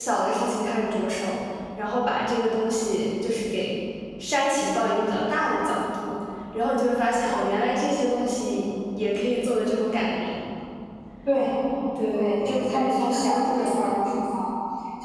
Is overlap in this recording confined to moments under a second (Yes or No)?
No